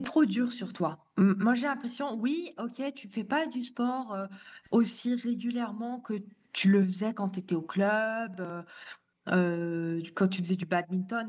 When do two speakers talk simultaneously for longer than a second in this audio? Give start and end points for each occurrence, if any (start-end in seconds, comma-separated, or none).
none